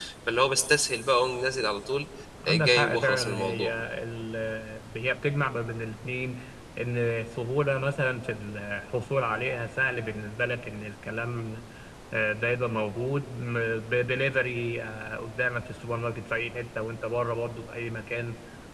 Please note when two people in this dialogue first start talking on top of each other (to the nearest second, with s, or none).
2 s